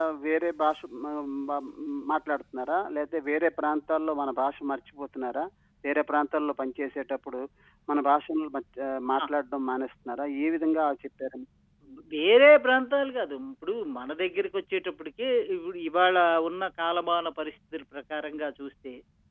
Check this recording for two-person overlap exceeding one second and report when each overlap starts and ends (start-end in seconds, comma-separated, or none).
none